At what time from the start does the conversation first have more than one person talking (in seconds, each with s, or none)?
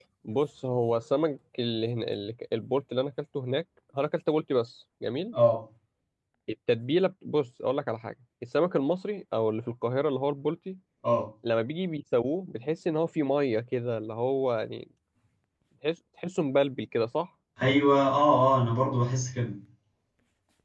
none